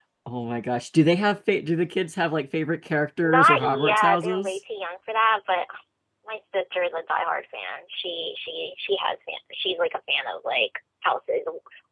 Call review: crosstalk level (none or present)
present